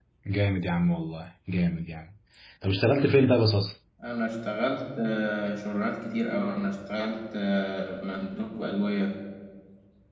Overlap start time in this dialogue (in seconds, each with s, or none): none